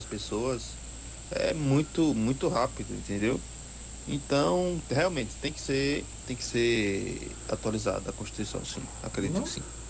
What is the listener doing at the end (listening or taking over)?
taking over